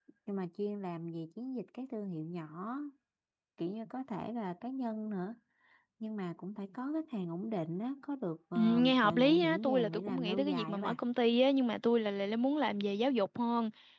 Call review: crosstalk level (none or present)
present